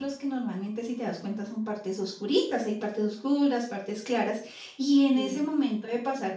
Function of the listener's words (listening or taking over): listening